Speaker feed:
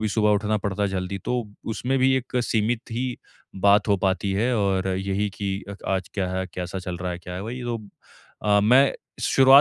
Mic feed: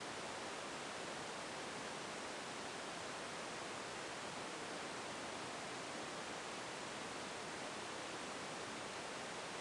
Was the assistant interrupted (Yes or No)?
No